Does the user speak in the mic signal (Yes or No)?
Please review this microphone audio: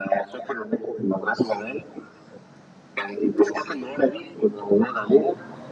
No